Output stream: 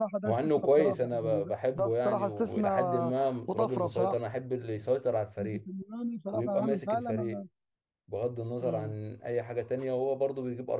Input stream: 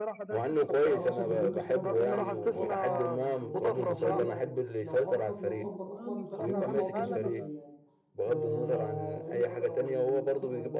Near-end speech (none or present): present